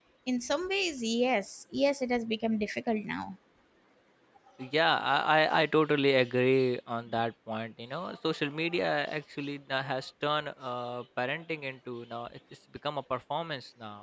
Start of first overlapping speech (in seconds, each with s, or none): none